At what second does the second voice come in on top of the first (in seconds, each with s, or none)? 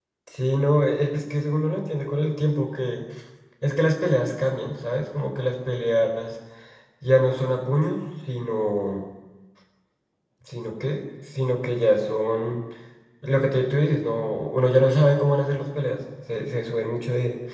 none